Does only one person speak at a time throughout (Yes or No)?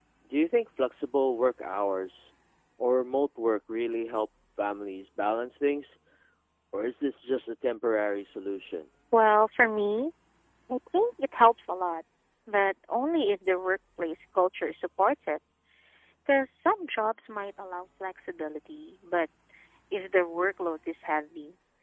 Yes